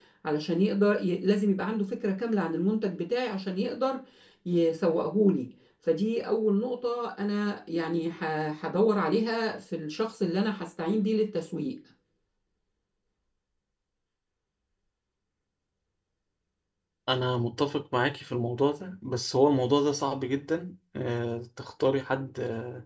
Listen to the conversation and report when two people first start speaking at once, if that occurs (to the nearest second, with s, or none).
none